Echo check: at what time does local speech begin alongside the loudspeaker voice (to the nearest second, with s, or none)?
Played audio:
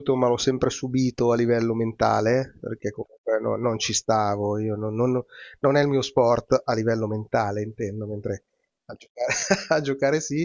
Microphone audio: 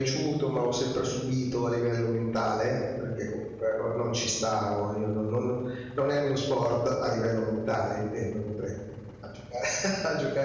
none